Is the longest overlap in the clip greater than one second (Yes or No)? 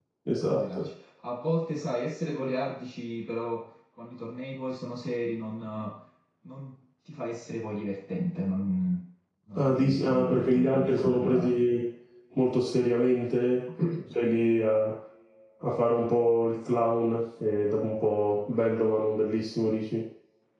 Yes